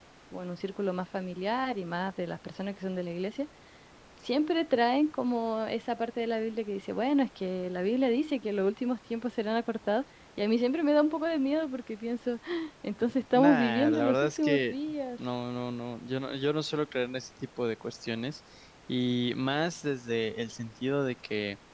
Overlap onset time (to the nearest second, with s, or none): 13 s